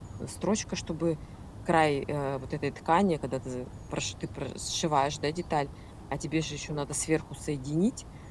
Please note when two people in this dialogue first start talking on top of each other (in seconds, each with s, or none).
none